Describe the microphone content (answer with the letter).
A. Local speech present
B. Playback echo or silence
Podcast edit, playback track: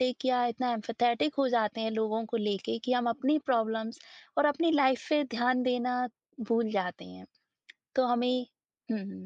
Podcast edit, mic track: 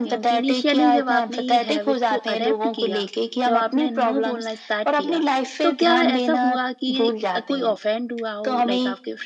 A